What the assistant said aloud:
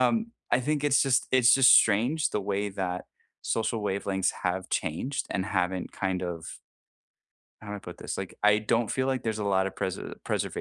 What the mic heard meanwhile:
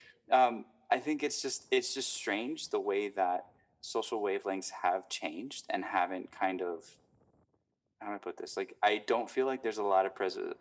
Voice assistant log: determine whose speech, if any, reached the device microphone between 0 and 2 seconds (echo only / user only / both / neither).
echo only